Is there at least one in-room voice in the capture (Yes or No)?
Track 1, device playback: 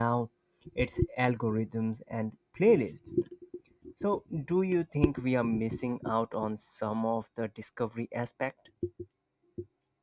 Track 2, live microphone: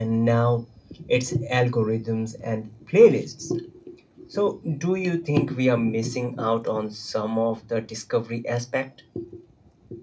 No